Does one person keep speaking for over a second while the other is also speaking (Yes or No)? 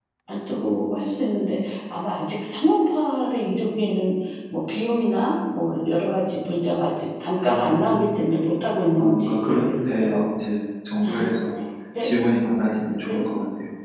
Yes